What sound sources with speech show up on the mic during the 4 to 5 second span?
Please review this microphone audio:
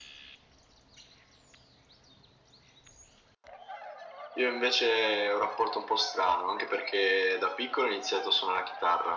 echo only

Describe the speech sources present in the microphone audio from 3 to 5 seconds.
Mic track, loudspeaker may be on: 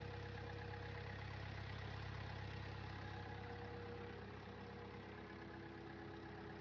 neither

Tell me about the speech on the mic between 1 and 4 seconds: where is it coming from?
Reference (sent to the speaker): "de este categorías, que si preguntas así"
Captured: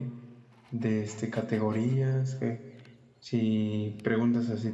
echo only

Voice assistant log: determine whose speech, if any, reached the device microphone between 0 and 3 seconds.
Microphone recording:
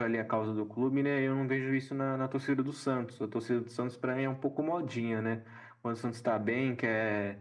echo only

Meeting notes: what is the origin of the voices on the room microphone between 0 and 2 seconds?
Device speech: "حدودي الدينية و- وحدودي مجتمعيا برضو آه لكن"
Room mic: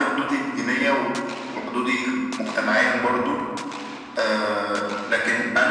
echo only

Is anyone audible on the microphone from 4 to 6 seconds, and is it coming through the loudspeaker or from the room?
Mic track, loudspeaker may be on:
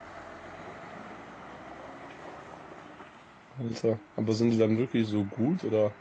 user only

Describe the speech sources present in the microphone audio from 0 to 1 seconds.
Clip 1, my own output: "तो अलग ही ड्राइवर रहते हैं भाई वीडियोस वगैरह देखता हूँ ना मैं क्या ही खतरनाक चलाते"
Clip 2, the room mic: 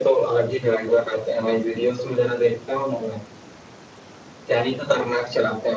echo only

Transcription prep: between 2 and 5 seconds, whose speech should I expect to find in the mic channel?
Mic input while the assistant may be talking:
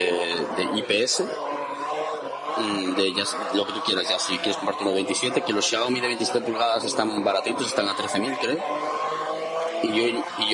echo only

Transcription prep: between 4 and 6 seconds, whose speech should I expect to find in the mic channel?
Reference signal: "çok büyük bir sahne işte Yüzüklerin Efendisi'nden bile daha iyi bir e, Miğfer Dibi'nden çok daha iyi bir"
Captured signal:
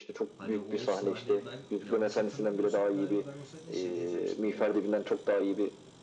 both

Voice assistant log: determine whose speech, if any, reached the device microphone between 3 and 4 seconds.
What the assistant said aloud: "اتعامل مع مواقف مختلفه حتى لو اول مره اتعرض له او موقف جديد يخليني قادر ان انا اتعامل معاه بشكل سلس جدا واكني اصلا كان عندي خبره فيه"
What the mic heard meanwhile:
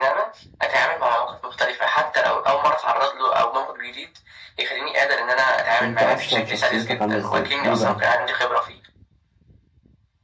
echo only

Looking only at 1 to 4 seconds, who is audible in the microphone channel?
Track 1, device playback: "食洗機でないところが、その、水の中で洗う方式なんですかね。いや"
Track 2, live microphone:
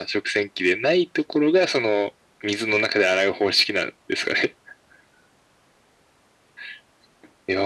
echo only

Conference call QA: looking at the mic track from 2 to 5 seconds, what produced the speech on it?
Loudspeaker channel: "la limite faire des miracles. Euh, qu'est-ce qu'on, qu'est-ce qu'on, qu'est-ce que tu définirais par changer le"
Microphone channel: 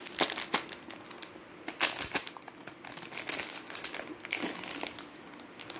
neither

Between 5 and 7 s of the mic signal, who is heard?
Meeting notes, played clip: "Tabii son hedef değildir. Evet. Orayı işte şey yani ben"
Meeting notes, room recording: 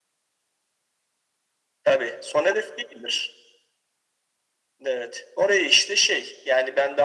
echo only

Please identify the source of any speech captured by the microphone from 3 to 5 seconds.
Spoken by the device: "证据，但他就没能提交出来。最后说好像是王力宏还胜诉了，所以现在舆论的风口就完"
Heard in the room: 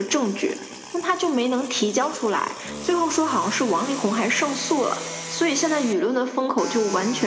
echo only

